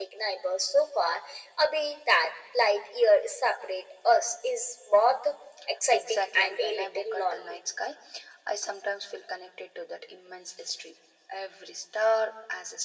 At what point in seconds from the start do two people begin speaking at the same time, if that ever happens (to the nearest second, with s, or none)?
6 s